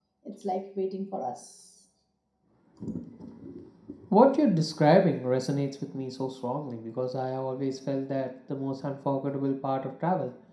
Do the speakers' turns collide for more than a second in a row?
No

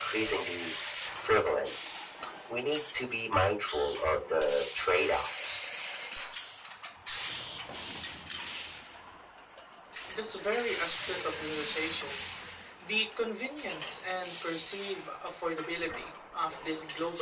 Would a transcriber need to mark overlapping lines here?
No

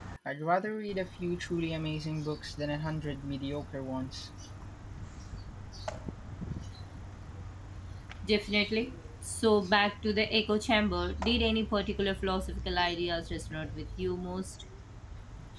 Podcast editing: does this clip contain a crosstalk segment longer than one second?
No

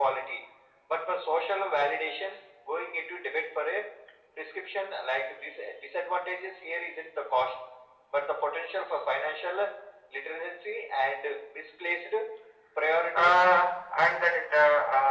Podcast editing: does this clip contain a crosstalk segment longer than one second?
No

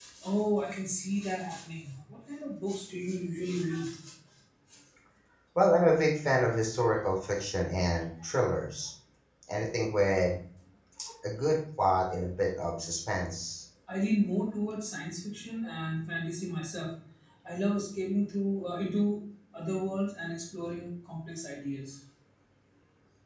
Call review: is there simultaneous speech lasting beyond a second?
No

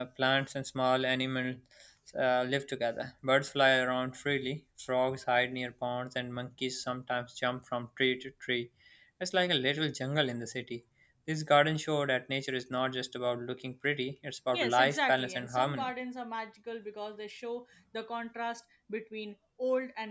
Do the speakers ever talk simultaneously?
Yes, from 14.5 s

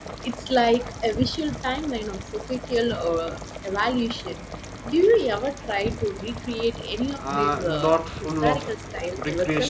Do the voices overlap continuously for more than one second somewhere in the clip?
Yes, from 7.2 s

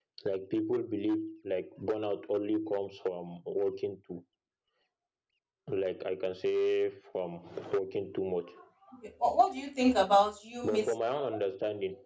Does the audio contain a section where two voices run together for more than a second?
No

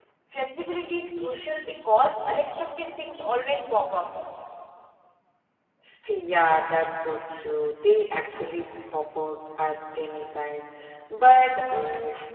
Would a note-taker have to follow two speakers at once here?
No

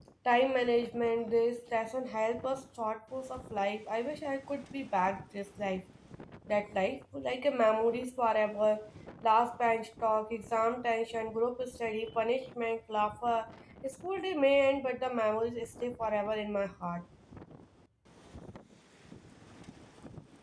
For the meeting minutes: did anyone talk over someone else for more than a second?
No

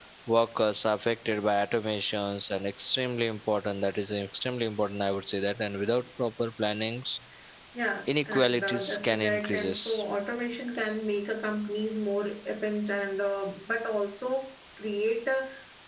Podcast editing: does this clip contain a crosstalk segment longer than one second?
Yes, from 8.1 s

